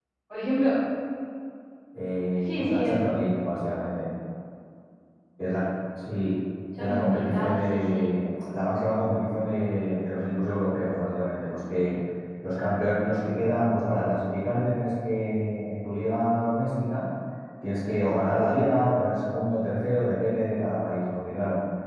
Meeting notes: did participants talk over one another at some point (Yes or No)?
Yes